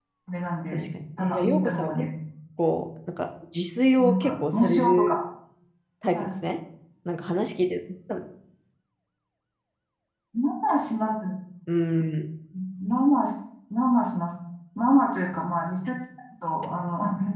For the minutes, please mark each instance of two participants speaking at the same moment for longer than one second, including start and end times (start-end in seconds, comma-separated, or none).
0.7-2.0, 4.0-5.2